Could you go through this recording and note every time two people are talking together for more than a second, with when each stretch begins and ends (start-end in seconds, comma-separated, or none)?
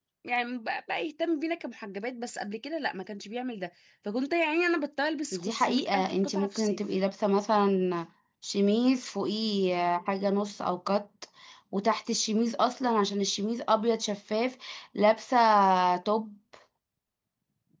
5.3-6.8